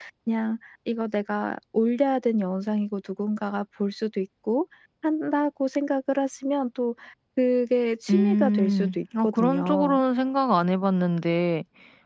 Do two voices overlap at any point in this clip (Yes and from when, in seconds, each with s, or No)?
Yes, from 8.1 s